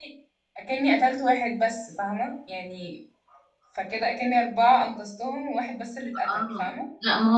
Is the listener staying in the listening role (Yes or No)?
No